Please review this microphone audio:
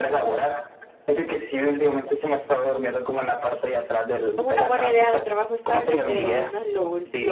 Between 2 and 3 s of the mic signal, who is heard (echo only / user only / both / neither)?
echo only